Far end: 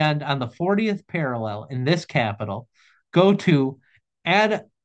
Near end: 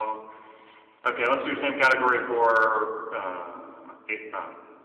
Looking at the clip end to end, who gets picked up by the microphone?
user only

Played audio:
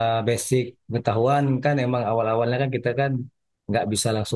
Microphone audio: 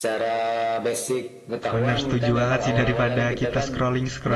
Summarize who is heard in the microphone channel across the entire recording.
both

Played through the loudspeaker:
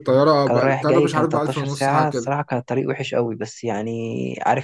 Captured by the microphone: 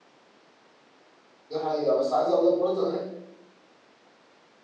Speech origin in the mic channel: user only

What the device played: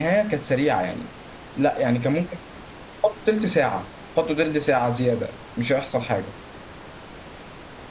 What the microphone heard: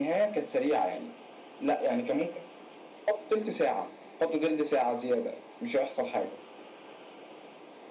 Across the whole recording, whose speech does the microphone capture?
echo only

